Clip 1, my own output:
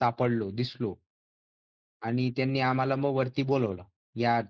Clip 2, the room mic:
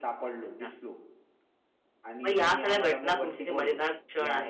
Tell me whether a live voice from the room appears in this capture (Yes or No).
Yes